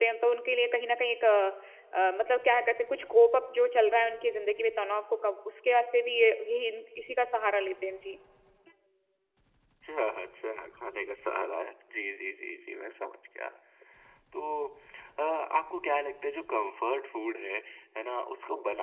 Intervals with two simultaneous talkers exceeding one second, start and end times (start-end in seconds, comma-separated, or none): none